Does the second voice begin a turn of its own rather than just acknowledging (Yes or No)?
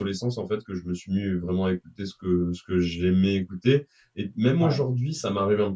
No